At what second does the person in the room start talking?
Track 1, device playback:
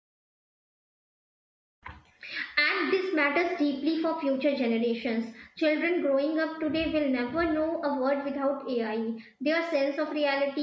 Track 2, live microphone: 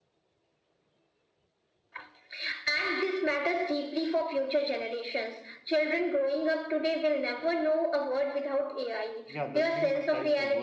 9.3 s

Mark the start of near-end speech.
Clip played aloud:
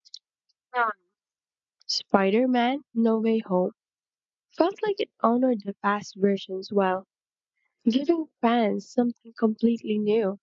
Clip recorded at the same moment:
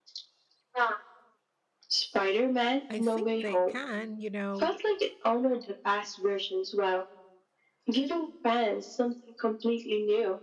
2.9 s

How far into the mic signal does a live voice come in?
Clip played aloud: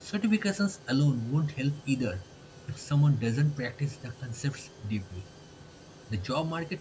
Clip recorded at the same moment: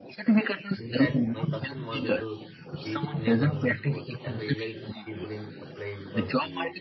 0.8 s

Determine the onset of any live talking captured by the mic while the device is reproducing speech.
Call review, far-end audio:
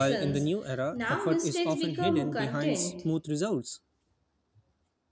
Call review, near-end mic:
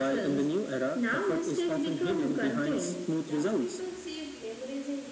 3.2 s

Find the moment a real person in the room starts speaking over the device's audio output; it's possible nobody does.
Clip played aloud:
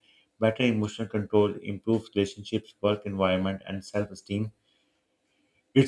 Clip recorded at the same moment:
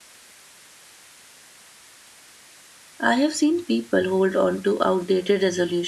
3.0 s

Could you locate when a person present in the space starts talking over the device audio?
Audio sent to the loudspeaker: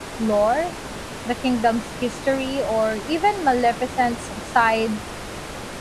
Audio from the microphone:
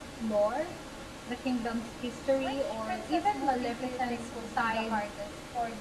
2.4 s

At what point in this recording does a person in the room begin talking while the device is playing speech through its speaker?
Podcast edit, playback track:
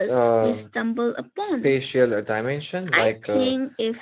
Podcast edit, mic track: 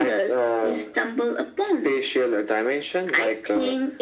none

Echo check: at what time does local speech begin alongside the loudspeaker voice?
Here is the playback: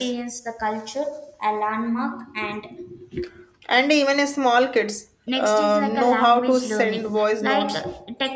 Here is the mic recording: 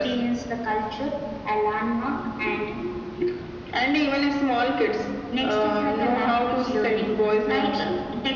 none

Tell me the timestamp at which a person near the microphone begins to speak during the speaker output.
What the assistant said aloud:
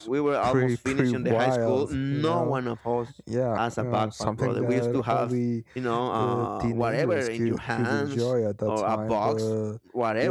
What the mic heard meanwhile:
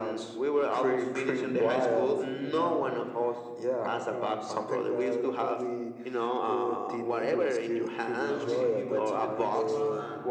8.2 s

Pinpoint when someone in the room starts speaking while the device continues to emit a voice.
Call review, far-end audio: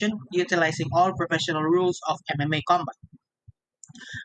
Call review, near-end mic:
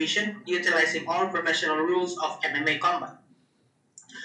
none

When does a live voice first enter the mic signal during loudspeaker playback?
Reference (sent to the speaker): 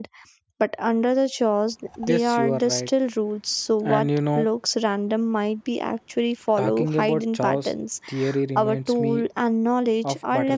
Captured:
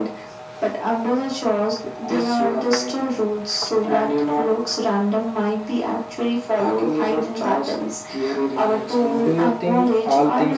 9.2 s

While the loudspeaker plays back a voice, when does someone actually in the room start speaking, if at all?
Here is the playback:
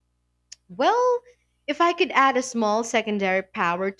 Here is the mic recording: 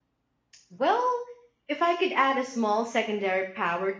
none

